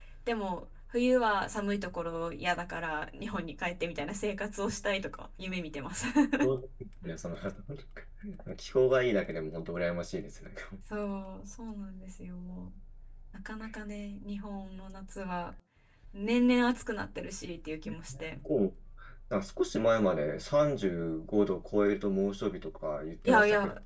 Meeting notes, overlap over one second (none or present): none